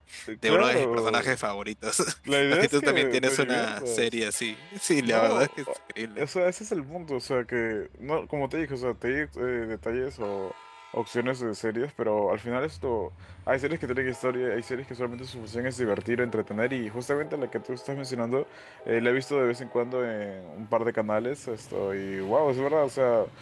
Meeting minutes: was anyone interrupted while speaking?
Yes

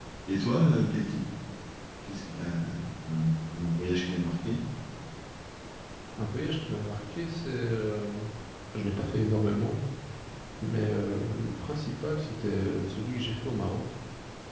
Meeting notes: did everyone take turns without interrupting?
Yes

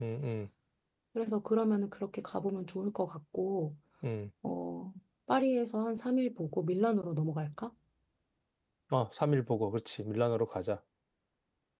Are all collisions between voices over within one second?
Yes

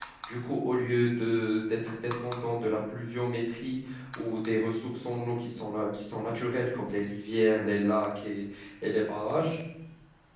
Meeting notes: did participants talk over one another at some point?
No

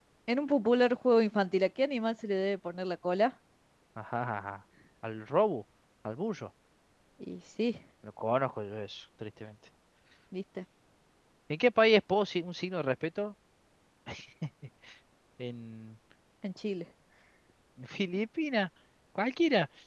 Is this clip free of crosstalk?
Yes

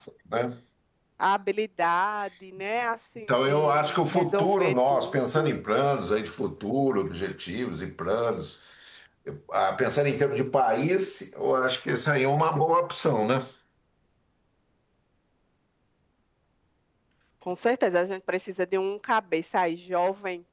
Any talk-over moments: Yes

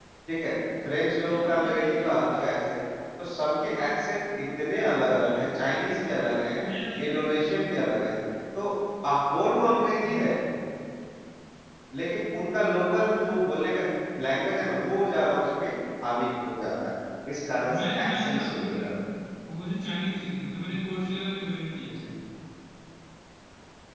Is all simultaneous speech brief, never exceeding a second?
No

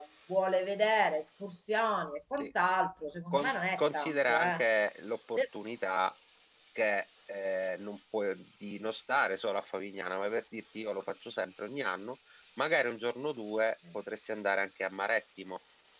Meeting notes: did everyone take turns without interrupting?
No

